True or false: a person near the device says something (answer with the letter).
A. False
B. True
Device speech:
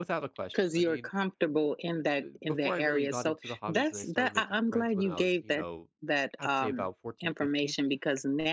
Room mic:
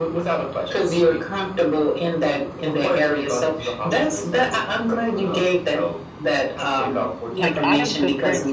B